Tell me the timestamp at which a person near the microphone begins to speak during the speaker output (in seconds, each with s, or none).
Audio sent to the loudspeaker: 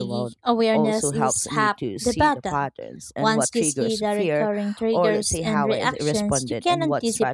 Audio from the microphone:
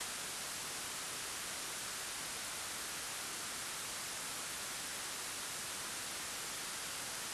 none